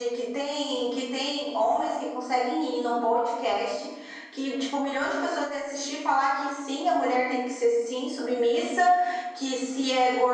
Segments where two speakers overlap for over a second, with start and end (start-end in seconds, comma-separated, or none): none